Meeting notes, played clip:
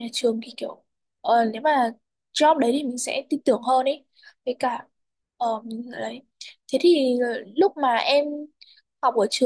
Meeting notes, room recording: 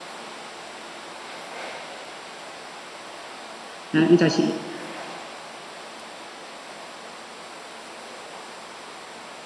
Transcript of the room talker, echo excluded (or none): À, em chào chị.